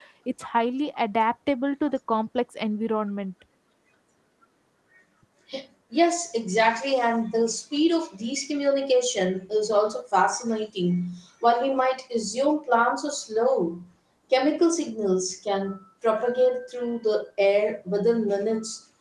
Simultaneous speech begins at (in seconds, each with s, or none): none